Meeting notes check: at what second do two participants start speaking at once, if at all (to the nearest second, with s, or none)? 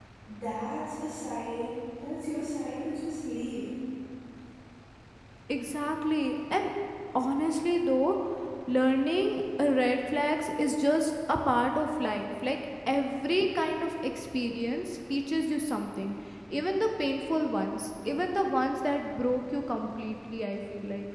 none